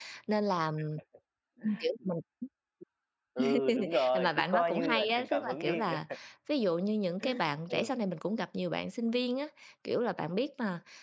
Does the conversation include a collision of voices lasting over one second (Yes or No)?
Yes